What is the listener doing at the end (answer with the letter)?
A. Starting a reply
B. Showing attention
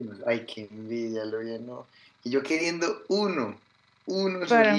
A